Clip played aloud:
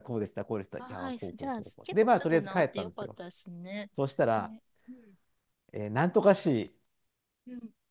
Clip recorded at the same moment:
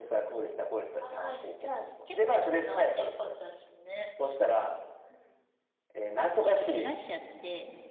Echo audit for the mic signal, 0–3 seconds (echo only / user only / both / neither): echo only